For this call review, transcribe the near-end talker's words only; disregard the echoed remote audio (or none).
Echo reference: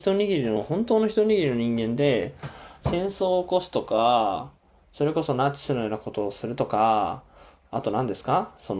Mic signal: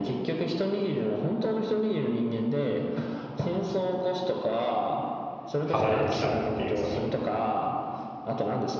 離れてきたんだっていうその